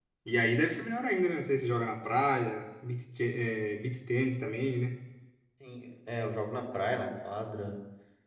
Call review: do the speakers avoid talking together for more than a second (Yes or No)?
Yes